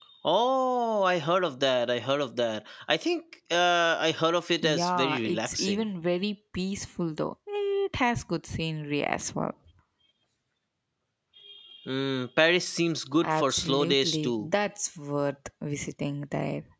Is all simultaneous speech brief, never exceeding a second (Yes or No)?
No